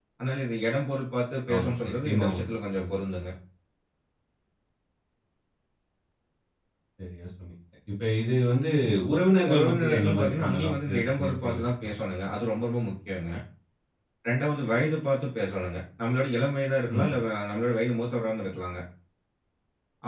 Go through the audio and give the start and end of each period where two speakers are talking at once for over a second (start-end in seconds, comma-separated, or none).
1.5-2.9, 9.5-11.9